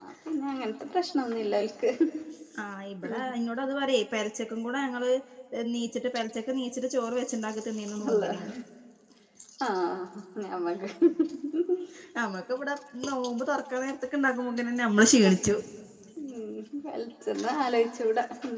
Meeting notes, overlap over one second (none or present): none